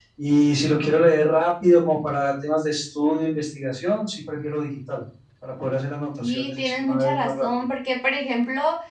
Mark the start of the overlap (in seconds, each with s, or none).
6.2 s